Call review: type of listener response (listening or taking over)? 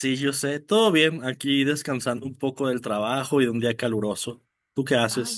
taking over